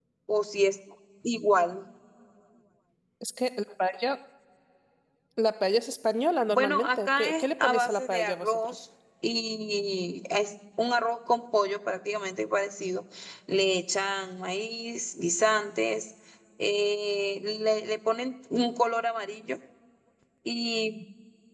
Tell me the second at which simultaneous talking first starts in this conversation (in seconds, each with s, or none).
6.5 s